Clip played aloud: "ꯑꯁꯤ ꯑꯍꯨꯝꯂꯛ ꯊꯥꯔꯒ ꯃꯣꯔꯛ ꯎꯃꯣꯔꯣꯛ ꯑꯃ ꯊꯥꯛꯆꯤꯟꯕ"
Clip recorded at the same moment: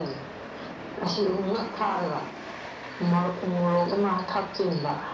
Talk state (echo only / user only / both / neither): echo only